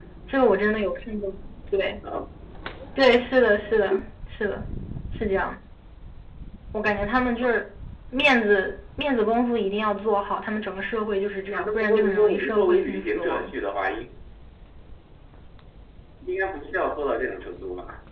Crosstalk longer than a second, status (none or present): present